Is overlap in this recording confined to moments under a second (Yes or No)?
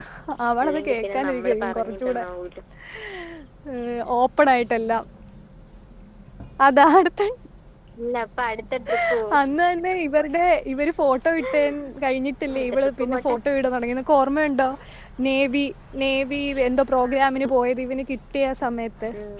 No